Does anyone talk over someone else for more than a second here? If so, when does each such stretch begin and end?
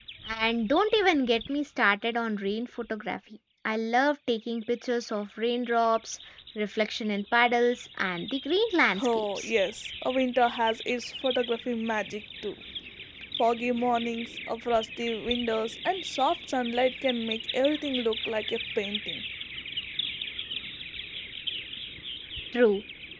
none

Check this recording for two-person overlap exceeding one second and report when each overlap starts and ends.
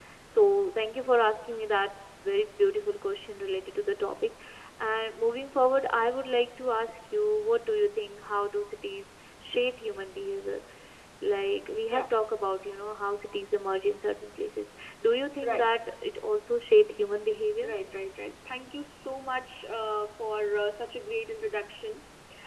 none

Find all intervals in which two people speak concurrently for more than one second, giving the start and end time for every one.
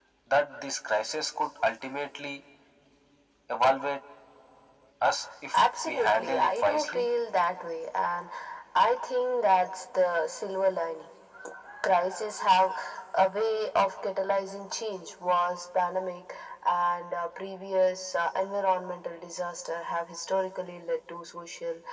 5.5-7.0

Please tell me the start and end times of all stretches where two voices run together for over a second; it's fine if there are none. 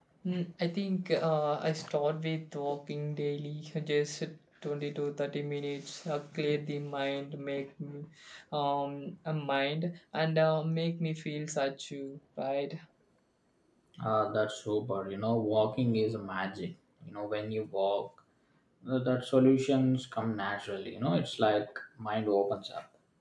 none

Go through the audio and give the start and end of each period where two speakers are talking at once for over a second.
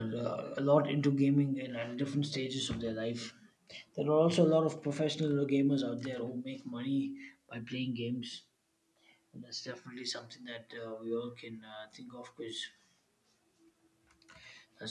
none

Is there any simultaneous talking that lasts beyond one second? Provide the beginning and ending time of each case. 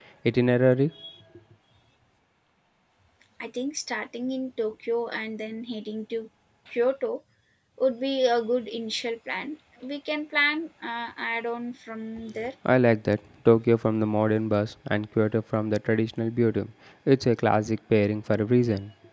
none

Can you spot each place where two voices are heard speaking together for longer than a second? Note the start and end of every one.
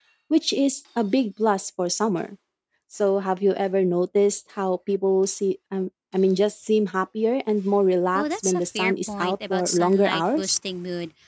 8.2-10.6

